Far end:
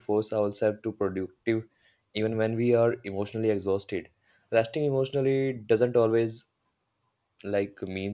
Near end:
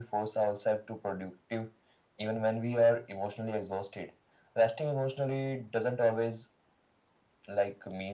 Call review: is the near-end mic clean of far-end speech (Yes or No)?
No